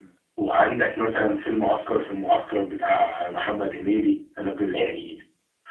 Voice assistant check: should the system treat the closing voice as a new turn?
No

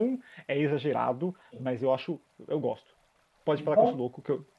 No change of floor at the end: Yes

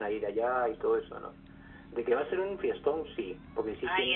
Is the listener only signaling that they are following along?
No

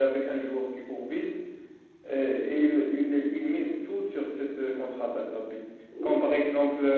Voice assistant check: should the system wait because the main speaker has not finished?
Yes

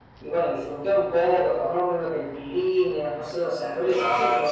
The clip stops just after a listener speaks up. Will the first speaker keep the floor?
No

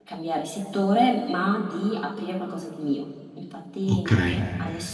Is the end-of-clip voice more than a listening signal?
No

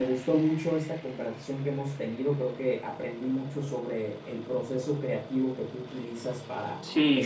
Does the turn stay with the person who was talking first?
No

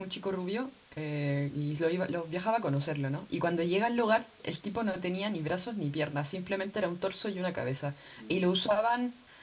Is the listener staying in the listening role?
Yes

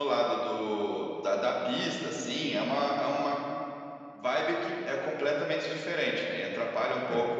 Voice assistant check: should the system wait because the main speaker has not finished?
Yes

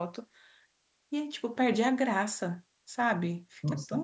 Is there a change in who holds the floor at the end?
Yes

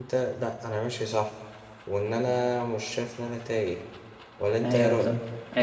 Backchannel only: No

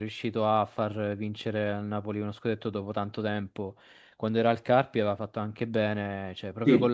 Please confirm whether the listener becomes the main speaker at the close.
No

